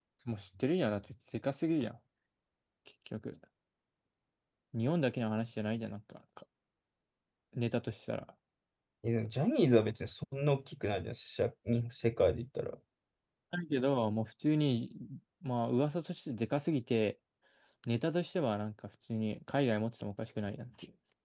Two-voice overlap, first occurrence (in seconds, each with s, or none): none